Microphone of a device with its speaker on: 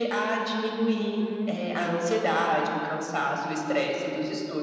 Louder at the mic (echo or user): echo